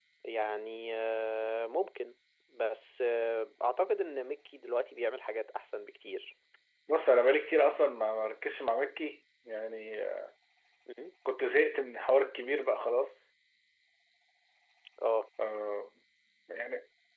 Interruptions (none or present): none